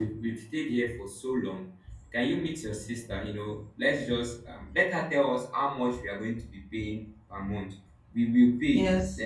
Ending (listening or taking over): listening